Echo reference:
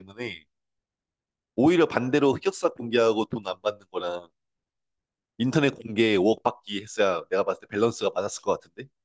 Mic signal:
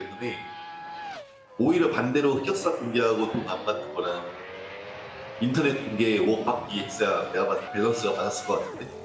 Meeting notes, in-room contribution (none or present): none